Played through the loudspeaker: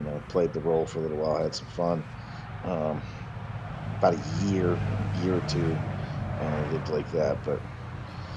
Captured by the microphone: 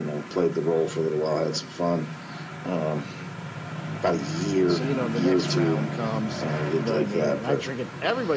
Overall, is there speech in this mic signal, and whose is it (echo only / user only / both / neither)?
both